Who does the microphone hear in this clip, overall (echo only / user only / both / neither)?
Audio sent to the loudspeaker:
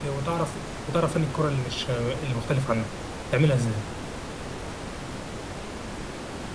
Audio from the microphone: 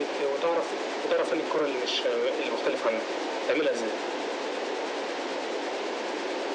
echo only